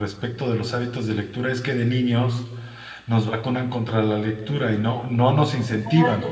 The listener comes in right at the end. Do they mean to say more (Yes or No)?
No